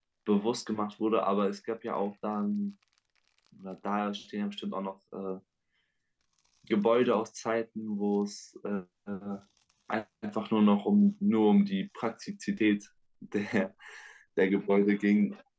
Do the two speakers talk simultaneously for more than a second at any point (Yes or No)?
No